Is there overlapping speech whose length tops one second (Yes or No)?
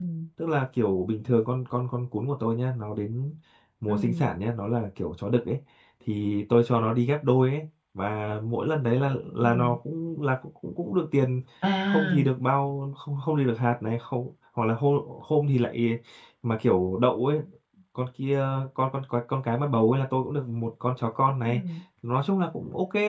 No